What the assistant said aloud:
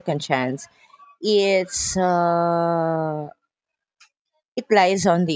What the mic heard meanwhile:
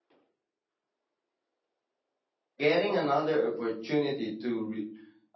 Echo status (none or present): none